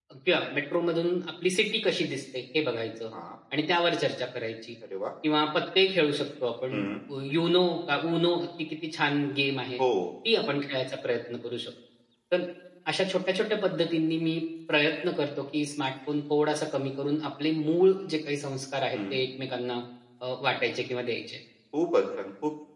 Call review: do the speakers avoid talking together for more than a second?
Yes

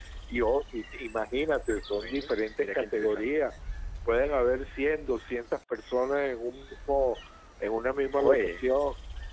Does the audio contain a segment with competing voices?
Yes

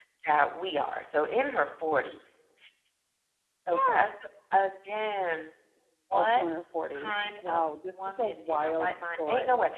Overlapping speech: Yes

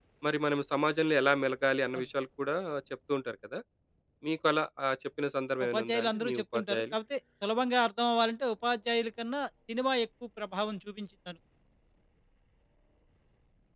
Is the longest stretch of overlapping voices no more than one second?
No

